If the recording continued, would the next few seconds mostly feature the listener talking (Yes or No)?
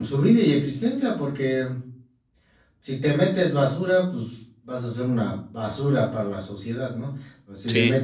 No